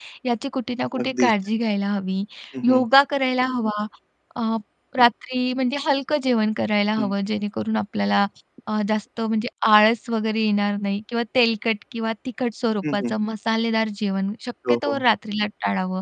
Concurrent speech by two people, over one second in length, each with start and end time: none

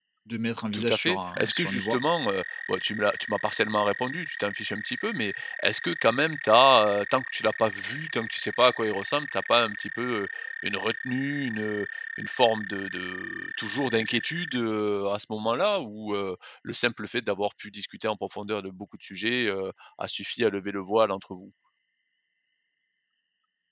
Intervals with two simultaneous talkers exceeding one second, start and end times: 0.7-2.0

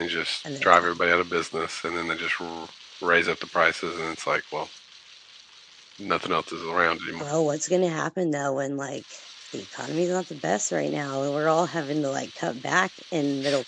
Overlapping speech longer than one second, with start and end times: none

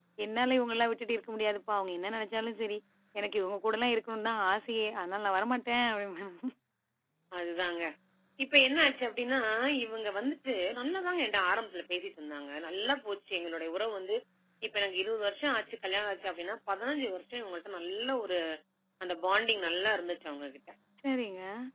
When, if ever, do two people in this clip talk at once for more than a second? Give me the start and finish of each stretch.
none

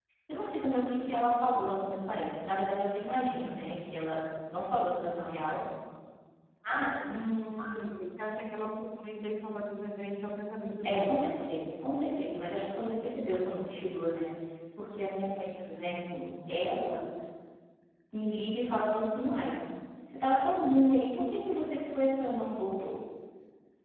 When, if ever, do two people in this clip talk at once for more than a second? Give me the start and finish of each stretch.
none

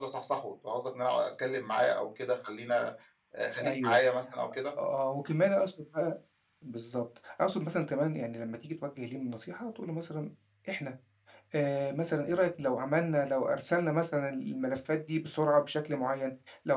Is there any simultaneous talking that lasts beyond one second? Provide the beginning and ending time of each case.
none

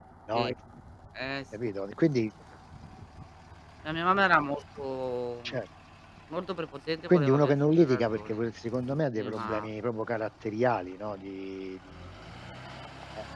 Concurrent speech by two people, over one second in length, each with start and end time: 7.1-8.4

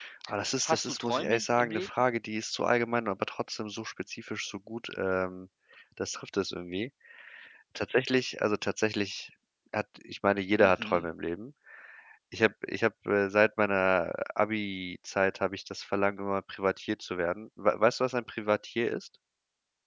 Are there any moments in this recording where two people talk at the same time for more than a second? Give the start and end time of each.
0.6-1.9

